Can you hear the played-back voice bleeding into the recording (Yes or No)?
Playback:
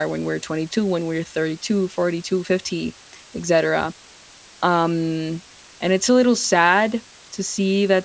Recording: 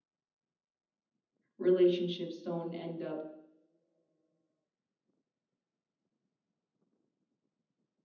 No